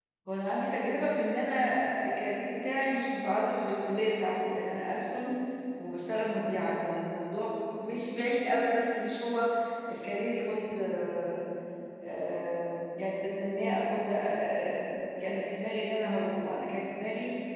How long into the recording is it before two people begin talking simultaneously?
none

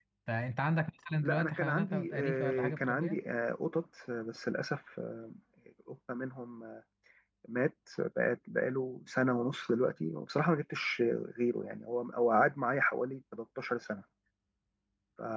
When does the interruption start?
1.2 s

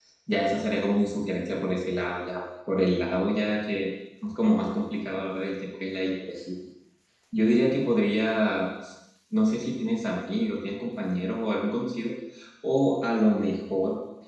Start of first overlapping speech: none

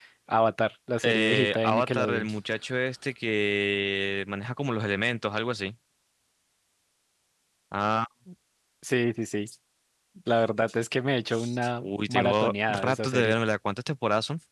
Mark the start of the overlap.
1.0 s

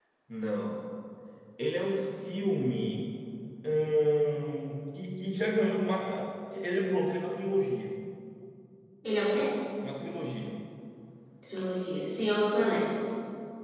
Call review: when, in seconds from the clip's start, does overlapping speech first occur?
none

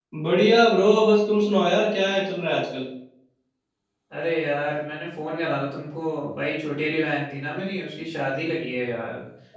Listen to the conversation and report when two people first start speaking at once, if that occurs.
none

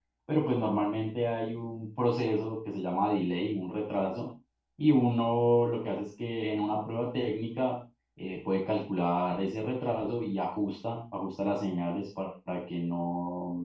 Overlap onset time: none

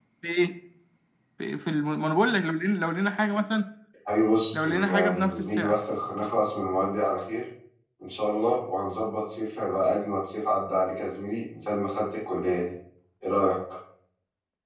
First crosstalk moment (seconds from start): 4.5 s

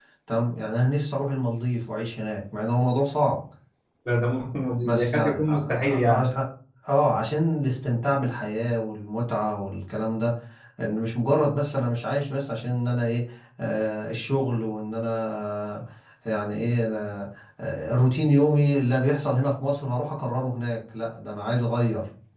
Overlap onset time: 5.0 s

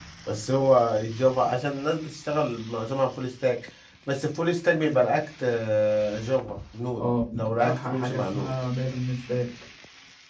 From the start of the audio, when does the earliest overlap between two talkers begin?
7.0 s

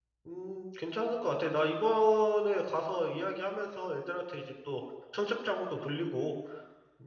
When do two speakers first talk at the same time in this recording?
none

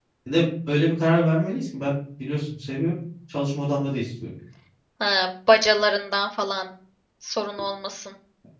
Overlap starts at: none

